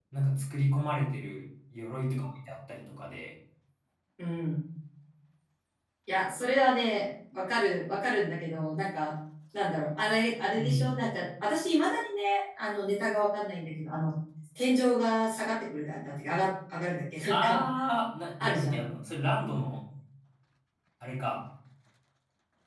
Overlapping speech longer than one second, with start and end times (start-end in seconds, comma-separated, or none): none